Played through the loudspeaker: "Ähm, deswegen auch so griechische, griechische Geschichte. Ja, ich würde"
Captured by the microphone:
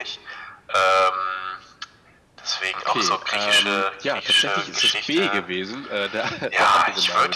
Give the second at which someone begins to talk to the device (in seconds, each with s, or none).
2.8 s